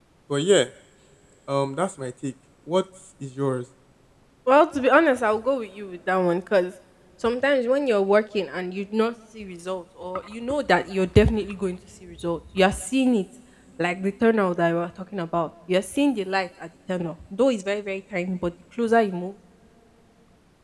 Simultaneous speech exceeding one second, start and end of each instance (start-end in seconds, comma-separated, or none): none